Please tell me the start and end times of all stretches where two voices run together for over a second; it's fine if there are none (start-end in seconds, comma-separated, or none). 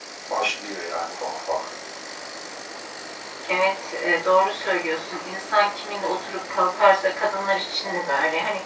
none